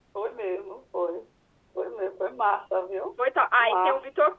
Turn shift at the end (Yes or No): Yes